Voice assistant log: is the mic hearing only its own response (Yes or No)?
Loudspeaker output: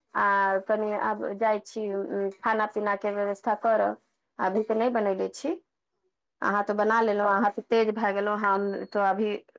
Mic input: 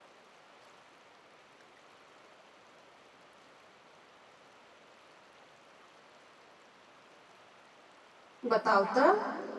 No